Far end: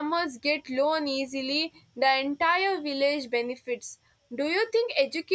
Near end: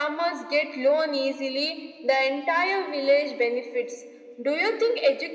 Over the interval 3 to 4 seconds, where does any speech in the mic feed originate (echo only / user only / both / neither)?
echo only